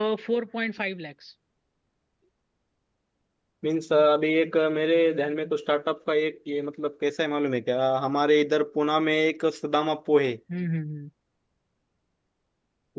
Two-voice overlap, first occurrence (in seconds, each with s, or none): none